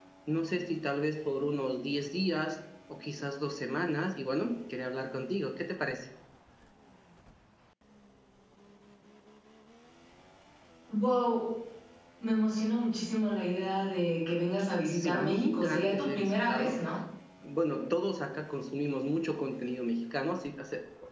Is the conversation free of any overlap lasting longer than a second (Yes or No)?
No